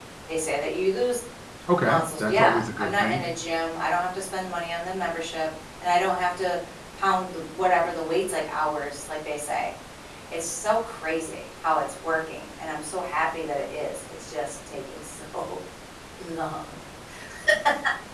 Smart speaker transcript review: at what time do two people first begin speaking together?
1.8 s

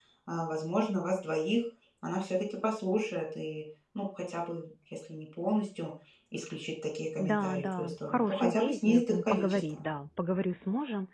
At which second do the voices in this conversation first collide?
7.2 s

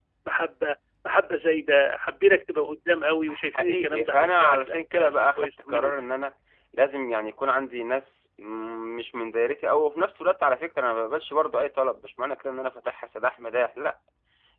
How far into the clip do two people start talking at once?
3.3 s

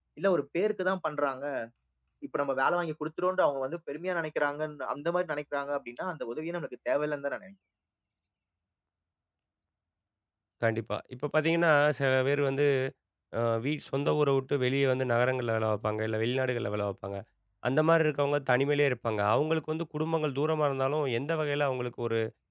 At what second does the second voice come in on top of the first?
none

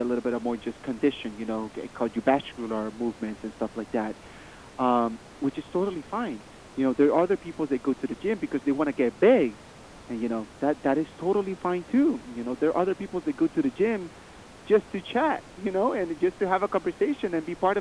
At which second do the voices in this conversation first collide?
none

